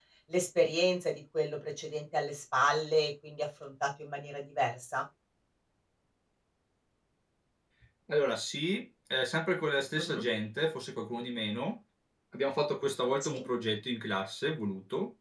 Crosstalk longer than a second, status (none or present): none